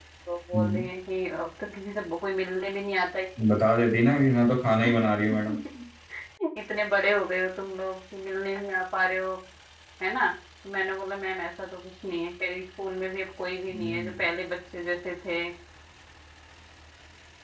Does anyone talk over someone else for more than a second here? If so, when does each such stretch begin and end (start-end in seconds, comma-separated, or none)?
none